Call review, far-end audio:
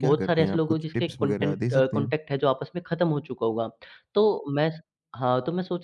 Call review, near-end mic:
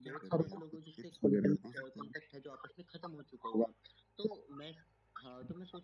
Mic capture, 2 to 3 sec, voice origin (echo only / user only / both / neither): echo only